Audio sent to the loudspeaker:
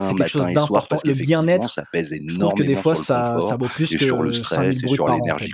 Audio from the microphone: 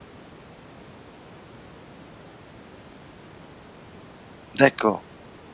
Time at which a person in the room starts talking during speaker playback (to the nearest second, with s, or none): 5 s